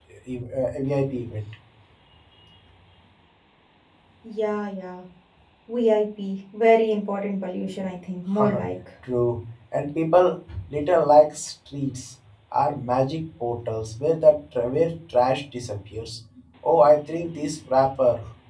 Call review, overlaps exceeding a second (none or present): none